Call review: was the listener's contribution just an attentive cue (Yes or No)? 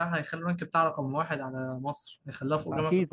No